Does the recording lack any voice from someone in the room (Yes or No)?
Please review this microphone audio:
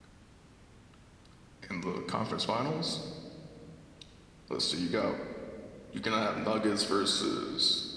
Yes